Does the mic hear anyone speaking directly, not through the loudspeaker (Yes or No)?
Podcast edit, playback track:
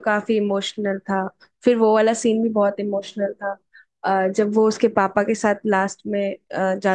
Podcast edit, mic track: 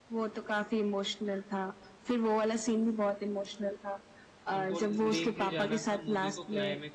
Yes